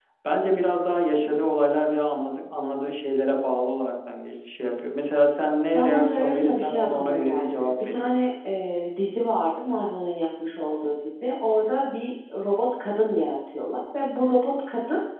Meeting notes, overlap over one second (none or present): present